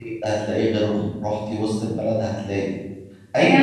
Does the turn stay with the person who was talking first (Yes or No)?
No